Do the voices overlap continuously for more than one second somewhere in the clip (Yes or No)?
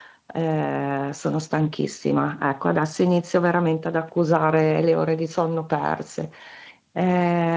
No